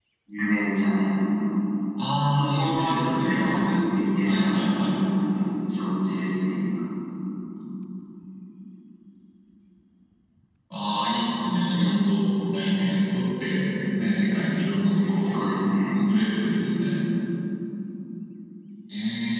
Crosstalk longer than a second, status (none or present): present